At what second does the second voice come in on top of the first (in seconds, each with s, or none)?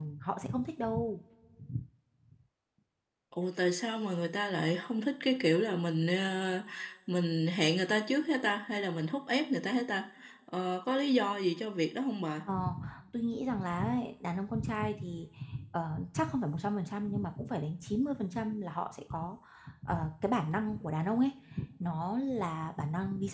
none